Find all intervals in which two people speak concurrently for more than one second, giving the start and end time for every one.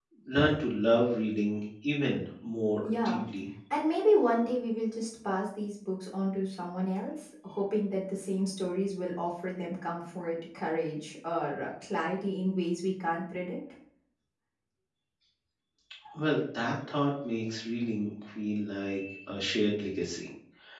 none

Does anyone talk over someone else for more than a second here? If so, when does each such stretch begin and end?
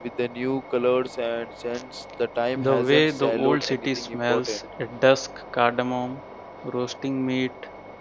2.5-4.6

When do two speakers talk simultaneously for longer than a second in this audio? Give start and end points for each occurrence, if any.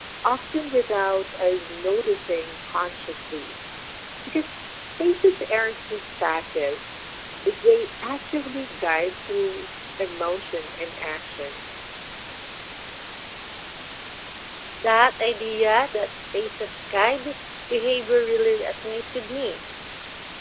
none

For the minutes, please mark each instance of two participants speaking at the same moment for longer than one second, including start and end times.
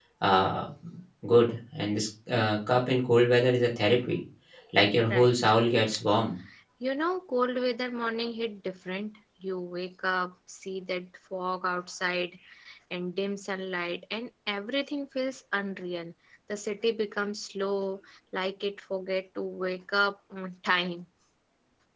none

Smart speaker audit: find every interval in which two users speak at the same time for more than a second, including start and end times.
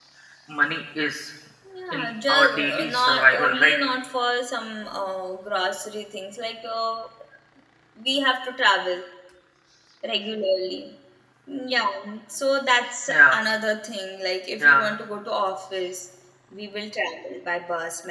1.9-3.8

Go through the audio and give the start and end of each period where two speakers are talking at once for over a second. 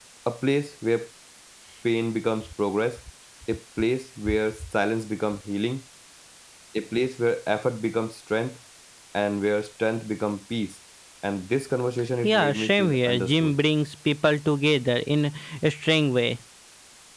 12.2-13.6

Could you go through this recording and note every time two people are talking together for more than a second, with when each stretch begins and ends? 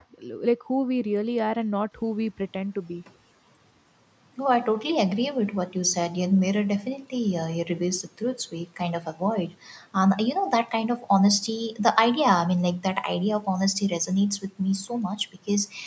none

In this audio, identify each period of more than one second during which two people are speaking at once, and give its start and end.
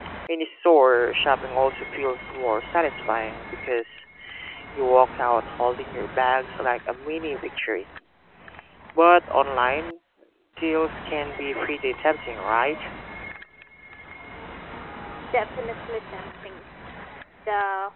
none

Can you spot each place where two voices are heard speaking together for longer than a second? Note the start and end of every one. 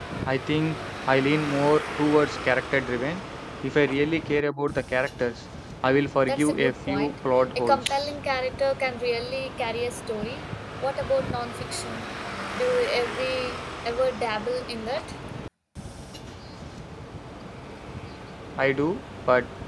6.3-8.0

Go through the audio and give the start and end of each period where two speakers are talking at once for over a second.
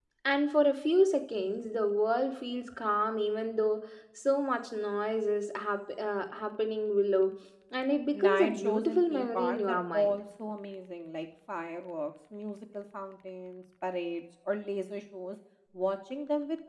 8.1-10.2

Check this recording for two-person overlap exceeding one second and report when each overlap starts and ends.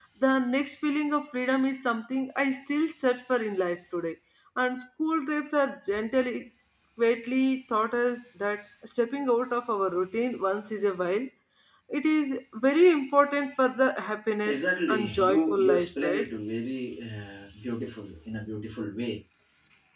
14.5-16.3

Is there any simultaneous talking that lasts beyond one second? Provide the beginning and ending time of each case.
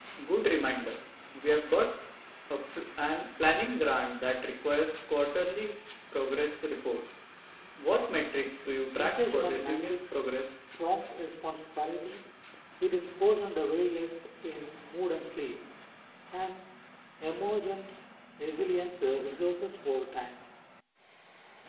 9.0-10.2

